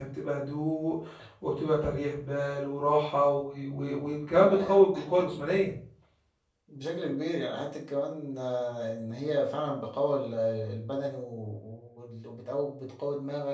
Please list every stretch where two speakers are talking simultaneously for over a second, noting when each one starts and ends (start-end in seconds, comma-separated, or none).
3.6-4.8